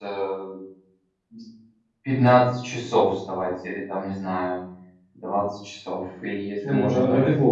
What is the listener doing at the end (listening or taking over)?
taking over